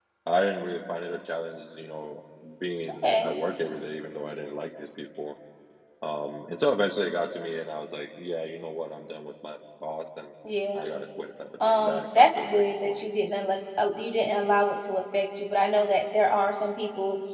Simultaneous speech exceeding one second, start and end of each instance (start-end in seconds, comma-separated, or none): 11.7-13.0